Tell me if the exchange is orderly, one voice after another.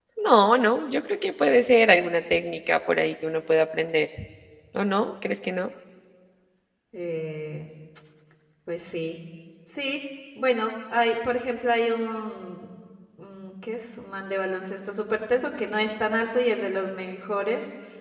Yes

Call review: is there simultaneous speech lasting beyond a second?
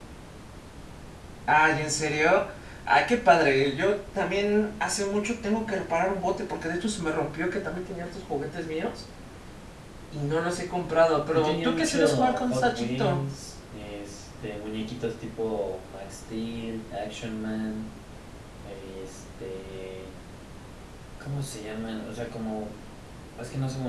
Yes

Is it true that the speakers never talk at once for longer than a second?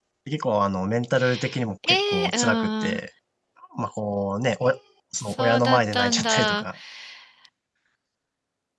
No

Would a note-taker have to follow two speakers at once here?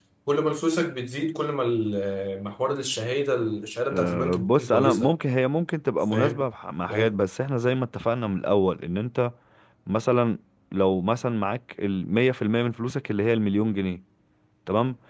Yes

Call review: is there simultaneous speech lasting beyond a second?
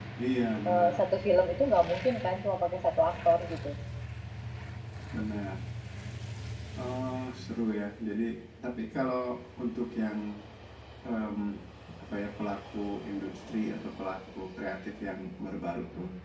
No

